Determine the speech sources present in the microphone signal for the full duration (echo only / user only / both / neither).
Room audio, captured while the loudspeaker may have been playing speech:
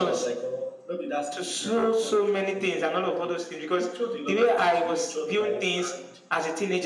echo only